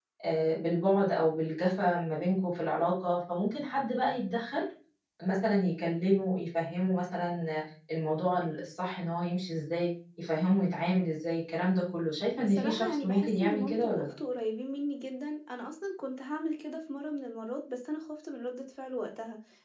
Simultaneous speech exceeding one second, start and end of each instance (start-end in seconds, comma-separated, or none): 12.4-14.1